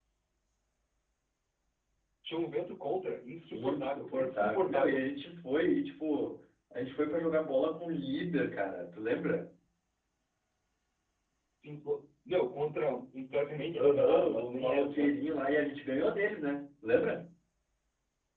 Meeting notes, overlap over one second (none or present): present